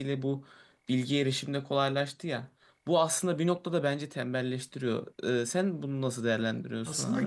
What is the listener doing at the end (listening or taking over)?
taking over